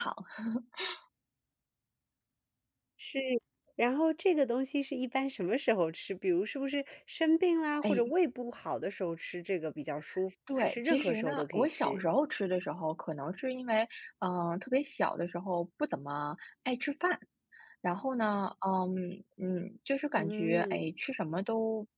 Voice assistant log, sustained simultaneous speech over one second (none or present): present